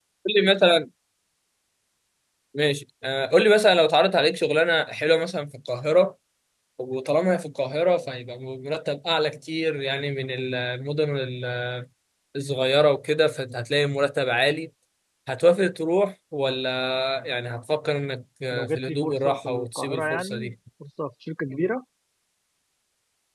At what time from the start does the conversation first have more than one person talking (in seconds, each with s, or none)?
18.5 s